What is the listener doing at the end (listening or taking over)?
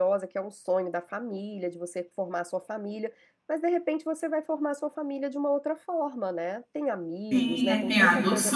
taking over